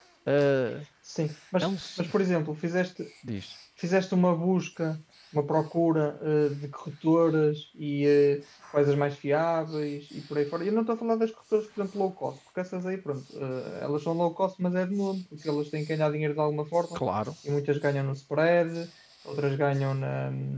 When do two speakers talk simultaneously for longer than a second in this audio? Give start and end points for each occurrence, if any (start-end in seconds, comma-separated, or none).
none